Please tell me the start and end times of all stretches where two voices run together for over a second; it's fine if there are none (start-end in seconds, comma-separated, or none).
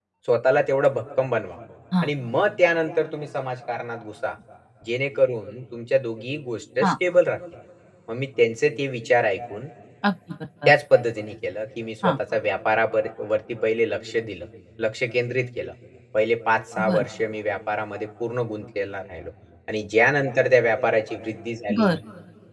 none